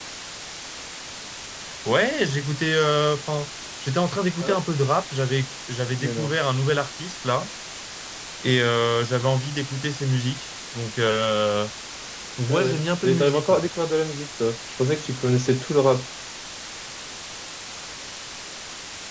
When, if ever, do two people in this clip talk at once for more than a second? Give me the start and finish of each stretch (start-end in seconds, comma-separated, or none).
12.5-13.7